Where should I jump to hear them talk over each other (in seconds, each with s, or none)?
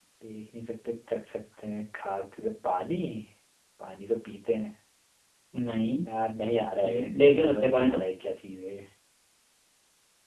6.8 s